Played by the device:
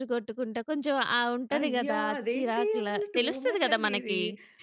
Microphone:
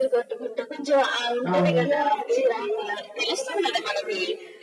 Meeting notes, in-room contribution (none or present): present